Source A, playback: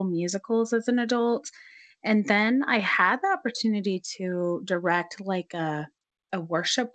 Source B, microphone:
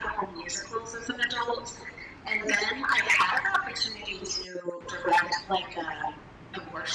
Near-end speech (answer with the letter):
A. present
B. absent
B